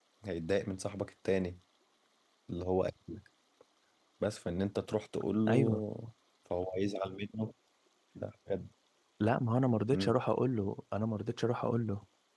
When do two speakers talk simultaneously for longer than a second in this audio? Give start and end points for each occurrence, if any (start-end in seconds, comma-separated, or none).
none